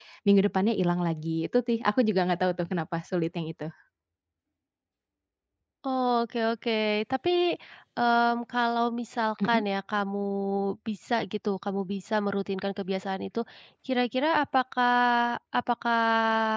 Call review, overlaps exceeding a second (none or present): none